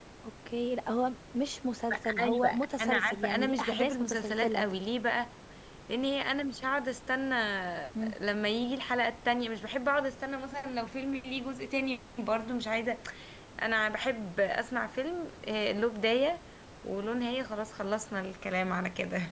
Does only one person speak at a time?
No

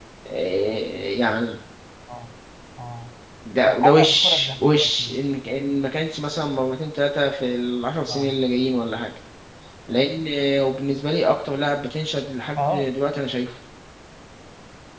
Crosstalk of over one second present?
Yes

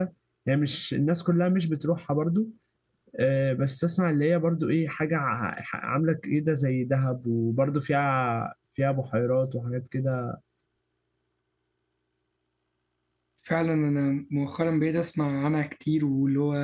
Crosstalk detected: No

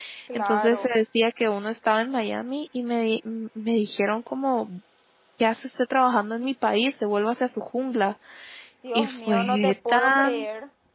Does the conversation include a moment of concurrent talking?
Yes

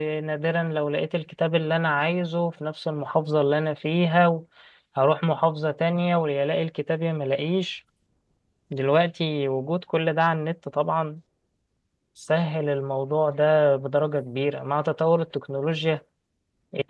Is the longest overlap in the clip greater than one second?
No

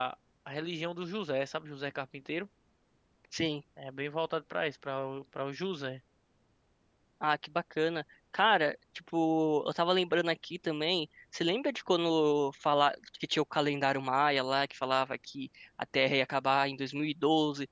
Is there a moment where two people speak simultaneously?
No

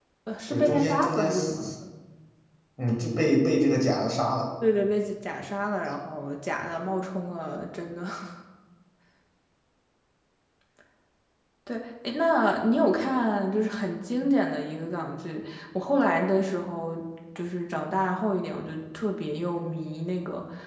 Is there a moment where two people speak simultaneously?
Yes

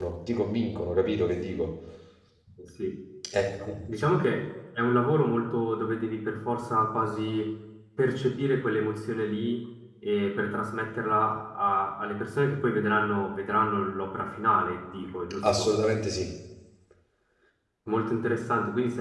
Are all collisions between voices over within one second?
Yes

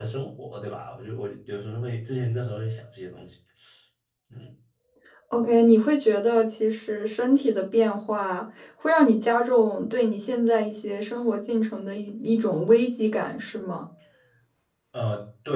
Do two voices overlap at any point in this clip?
No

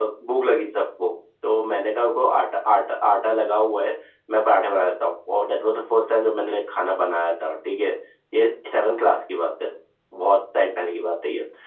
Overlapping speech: No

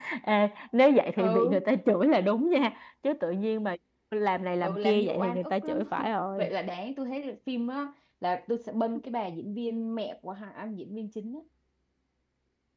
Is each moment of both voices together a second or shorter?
No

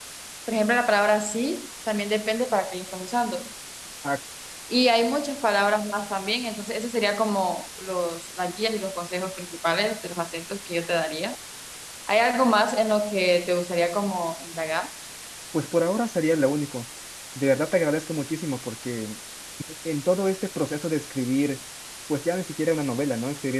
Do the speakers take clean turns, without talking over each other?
Yes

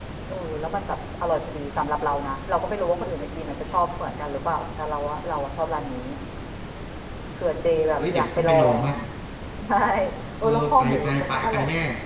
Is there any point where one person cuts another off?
Yes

